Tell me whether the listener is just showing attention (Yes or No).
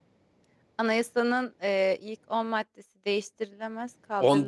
No